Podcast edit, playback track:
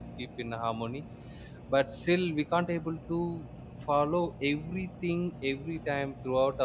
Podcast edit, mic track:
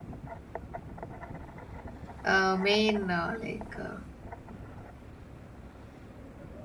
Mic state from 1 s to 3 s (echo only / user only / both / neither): user only